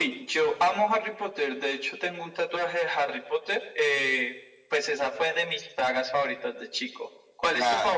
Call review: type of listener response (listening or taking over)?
taking over